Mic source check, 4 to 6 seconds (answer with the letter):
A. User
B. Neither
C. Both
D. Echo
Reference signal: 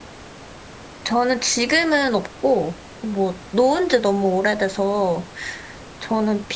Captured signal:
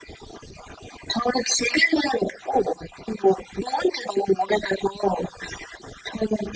D